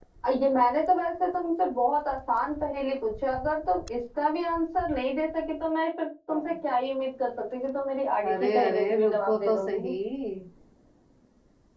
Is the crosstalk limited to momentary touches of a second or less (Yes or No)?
No